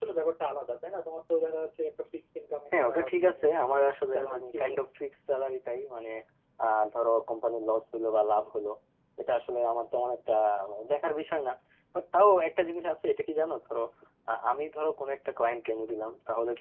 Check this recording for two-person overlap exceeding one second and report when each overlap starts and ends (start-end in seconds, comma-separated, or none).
2.8-4.8